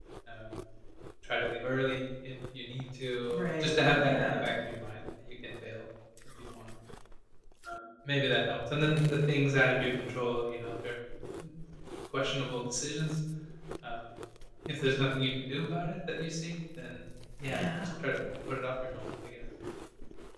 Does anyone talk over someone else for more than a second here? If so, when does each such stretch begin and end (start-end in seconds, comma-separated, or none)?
3.3-4.5